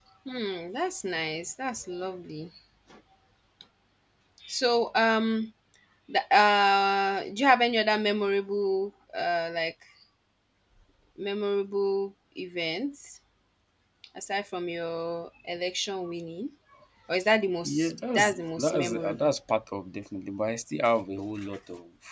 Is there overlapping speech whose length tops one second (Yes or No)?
Yes